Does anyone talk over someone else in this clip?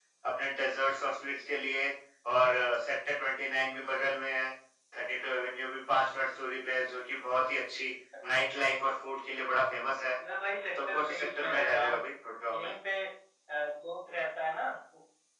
Yes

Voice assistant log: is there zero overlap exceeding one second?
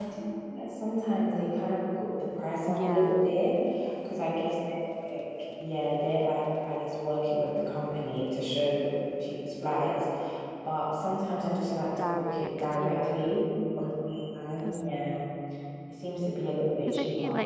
No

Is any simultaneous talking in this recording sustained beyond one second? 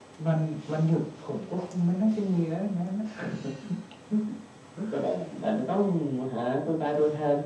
No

